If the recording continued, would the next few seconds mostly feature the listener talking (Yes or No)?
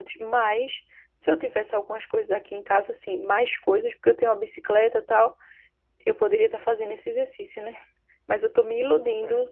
No